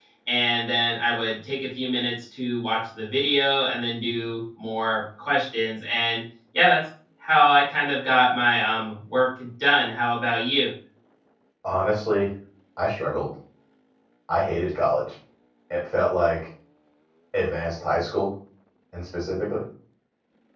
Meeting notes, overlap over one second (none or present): none